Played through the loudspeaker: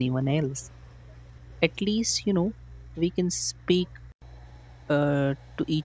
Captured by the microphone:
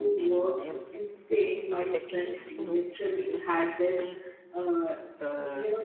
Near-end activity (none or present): present